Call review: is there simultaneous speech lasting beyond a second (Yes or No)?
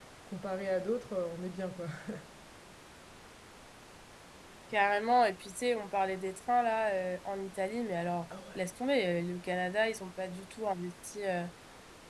No